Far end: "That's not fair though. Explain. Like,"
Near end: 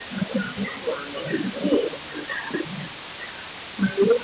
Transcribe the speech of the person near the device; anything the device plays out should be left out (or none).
none